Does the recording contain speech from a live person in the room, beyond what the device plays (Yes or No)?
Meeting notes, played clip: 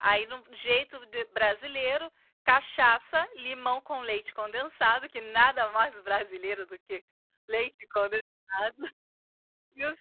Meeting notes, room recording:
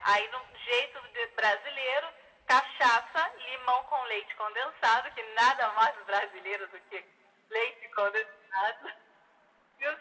No